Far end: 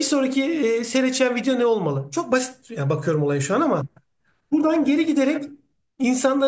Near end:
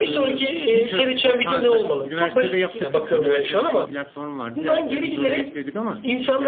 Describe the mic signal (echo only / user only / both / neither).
both